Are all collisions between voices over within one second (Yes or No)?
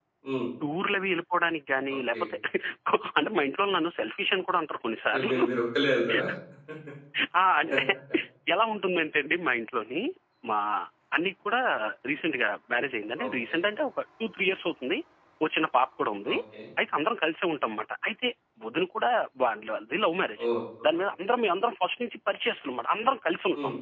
Yes